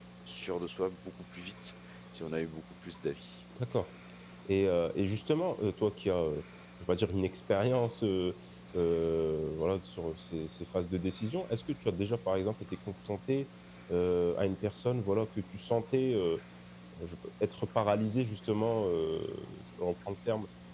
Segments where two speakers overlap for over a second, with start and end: none

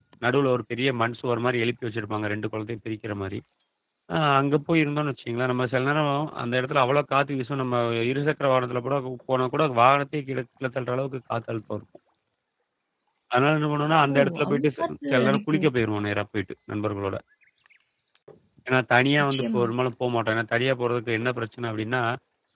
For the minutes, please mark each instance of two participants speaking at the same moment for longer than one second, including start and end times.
14.1-15.7

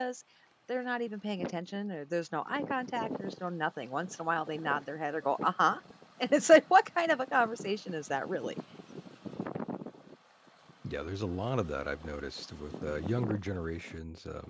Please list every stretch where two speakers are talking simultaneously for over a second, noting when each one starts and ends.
none

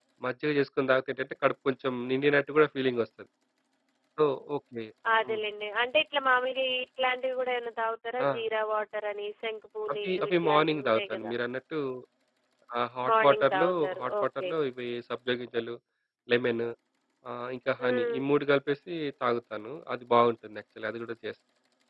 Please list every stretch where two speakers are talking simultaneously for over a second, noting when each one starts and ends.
10.0-11.3, 13.1-14.5

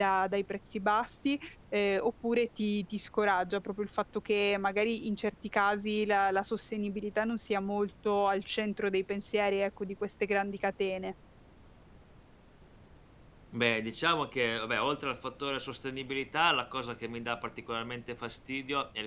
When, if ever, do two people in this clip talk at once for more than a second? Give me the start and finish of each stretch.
none

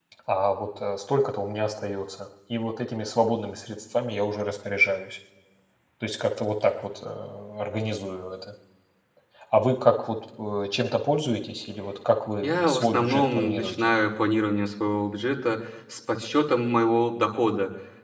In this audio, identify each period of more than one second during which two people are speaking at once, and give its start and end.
12.4-13.9

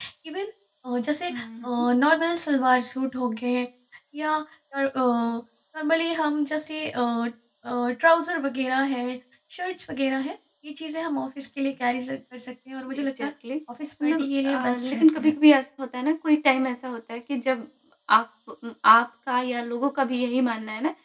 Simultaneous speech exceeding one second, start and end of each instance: 14.0-15.3

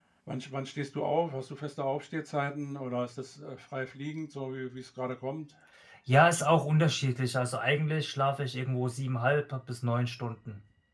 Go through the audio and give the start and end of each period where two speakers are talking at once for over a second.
none

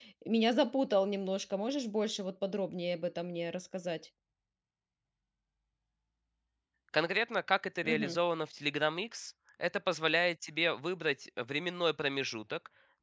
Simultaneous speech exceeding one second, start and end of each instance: none

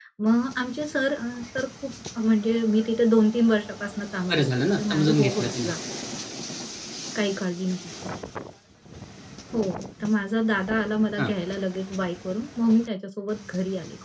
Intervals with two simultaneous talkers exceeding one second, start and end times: 4.3-5.7

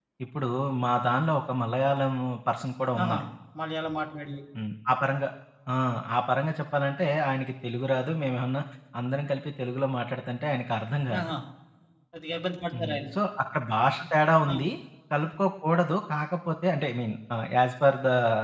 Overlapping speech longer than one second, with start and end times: none

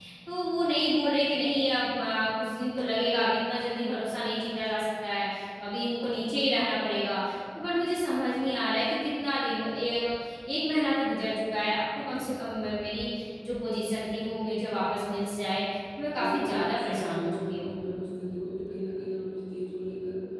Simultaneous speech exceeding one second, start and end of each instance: 16.1-17.7

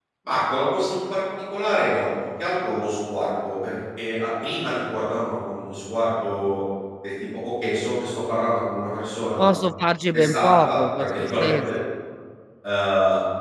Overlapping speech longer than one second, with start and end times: 10.1-11.7

